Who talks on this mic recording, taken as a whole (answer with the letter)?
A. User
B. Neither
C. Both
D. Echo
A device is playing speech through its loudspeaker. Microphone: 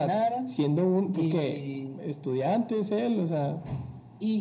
D